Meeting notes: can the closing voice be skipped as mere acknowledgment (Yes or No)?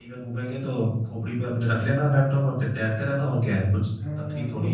No